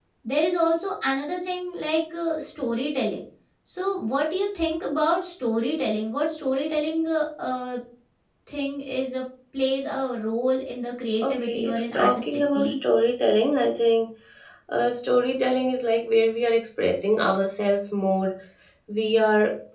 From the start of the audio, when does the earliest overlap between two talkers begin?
11.2 s

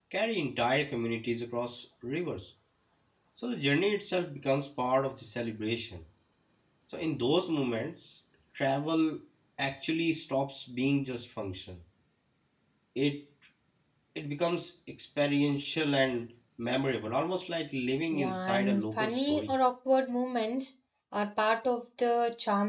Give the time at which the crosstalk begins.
18.1 s

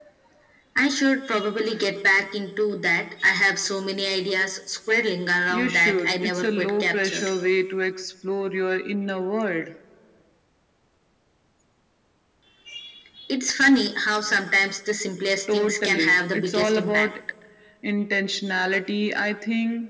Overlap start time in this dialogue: 5.5 s

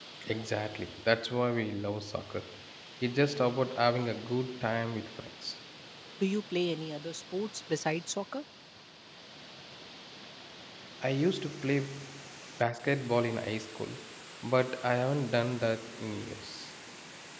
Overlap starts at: none

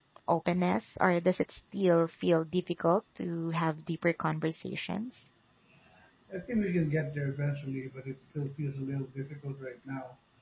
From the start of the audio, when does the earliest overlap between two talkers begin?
none

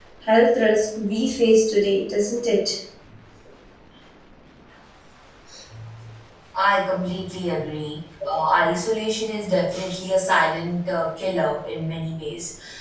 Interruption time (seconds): none

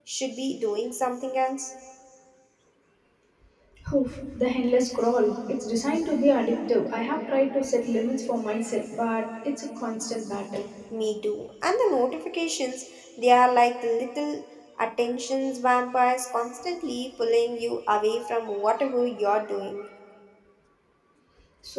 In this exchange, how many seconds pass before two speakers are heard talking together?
none

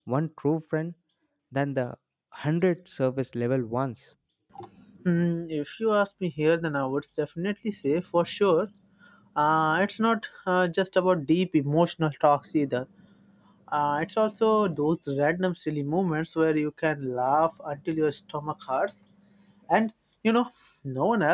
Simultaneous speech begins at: none

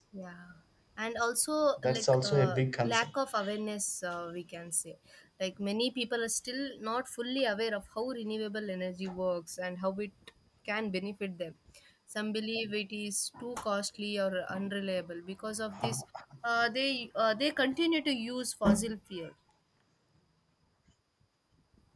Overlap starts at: 1.8 s

